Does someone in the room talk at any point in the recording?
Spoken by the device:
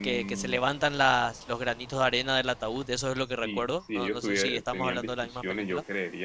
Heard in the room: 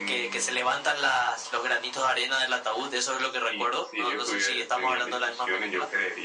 No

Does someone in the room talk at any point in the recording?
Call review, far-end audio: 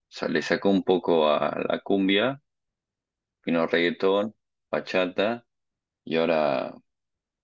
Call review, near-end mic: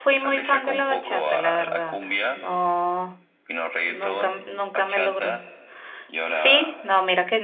Yes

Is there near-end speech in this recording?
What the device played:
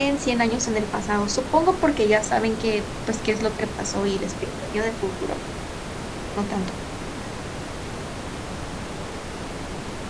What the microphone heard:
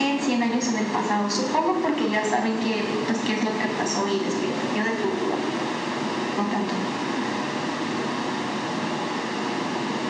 No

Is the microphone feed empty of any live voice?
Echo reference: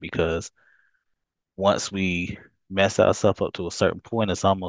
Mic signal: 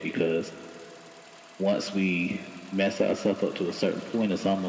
Yes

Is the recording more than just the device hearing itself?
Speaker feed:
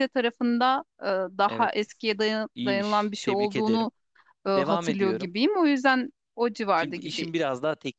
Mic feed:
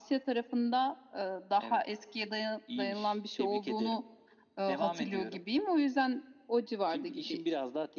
No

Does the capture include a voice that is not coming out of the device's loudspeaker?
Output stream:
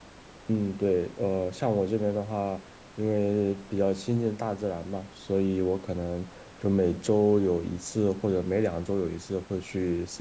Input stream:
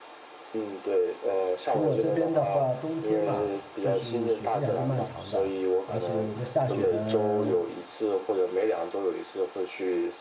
Yes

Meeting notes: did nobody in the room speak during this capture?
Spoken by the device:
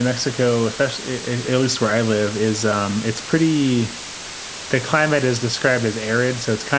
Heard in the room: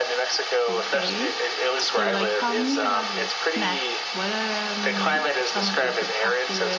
No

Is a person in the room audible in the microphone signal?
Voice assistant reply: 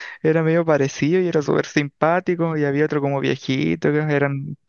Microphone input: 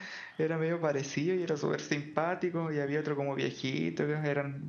No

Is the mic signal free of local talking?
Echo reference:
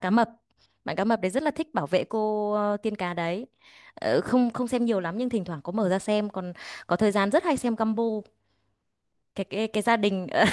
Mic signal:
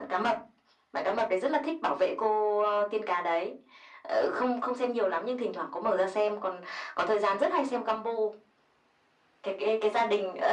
Yes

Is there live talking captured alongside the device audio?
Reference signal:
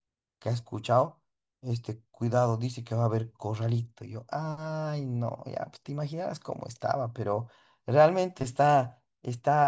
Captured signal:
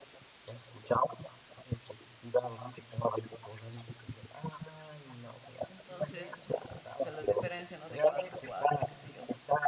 Yes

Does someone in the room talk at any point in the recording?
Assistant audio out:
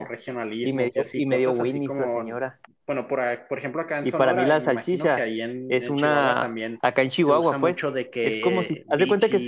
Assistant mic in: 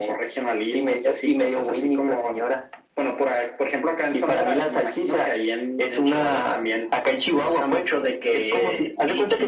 No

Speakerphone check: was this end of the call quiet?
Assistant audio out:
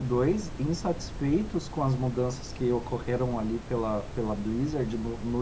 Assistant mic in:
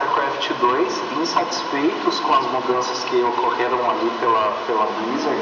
Yes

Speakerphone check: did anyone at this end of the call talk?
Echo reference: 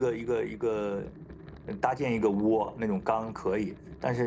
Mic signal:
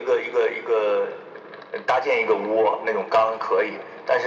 No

